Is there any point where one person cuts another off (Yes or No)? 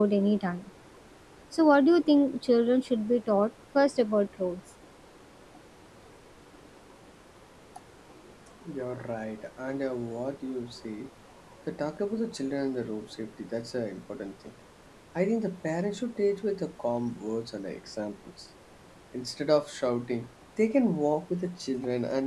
No